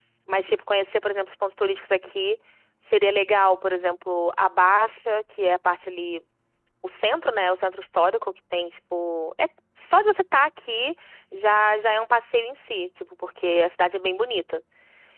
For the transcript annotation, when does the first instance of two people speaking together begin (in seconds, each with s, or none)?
none